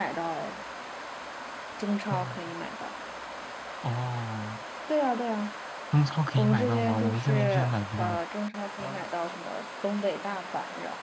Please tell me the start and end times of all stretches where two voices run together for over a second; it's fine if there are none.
6.4-8.2

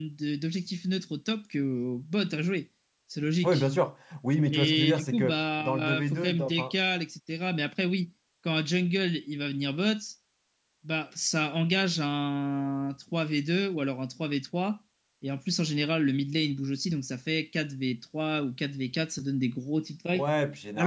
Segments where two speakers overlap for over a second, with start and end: 4.5-6.7

